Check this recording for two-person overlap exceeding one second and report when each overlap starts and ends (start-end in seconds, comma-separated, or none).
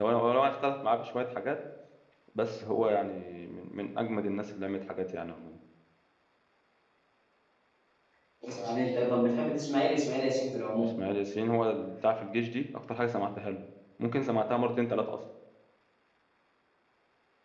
none